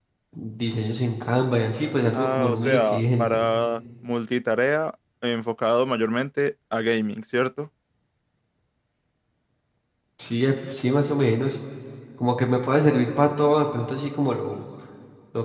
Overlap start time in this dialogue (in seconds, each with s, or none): 2.1 s